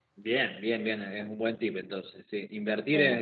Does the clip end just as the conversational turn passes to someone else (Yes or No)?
No